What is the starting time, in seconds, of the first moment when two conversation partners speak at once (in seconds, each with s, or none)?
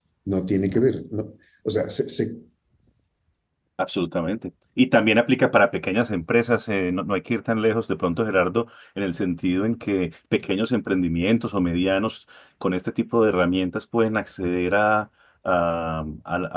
none